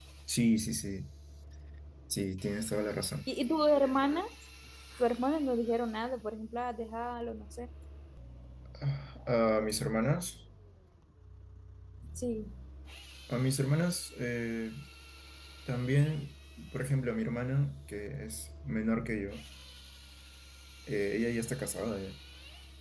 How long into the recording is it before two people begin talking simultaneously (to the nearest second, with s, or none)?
none